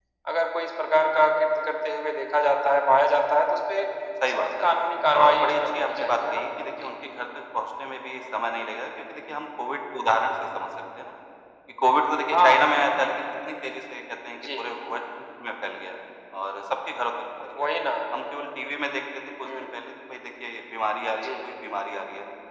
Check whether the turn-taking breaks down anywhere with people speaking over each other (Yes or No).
Yes